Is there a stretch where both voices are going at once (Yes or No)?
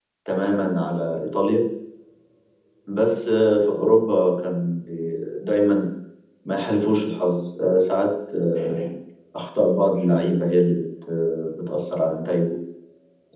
No